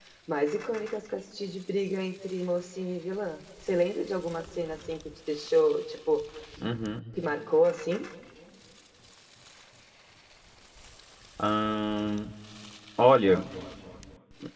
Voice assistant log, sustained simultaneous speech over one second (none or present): none